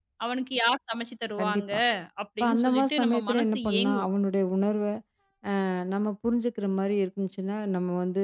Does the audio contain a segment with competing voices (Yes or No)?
Yes